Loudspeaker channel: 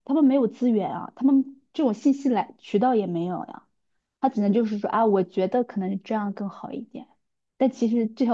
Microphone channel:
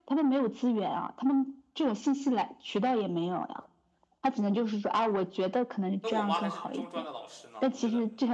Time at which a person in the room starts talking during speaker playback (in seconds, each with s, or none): 6.0 s